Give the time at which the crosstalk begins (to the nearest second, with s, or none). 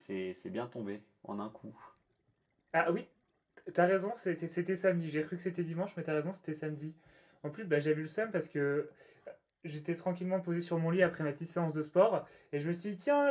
none